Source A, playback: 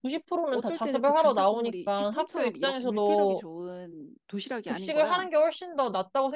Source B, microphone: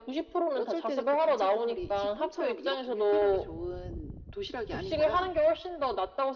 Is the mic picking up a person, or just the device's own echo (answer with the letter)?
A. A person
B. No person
B